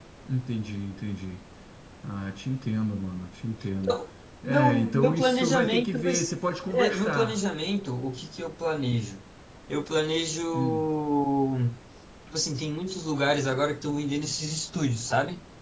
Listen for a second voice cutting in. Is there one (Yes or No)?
Yes